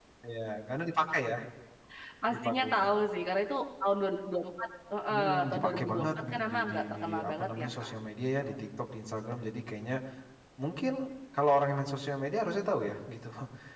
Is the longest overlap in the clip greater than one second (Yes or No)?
Yes